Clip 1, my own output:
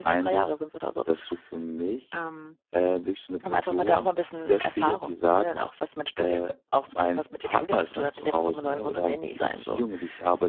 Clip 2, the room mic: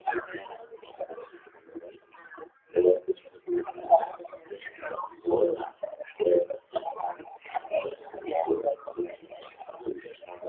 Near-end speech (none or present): none